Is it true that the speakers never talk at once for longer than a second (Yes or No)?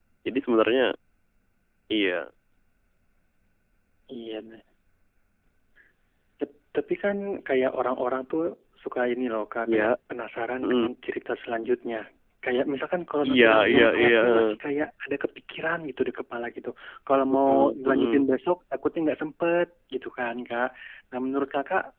No